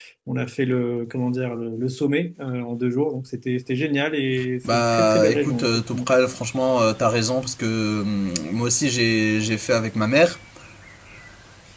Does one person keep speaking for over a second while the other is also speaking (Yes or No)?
Yes